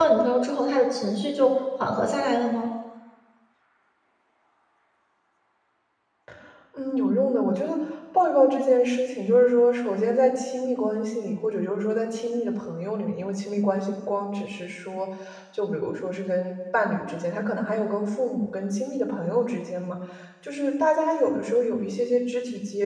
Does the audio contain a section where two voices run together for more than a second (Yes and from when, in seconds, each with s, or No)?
No